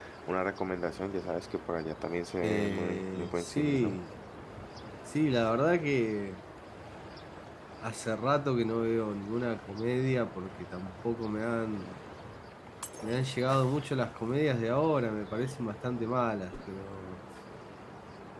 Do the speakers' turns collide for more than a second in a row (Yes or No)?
Yes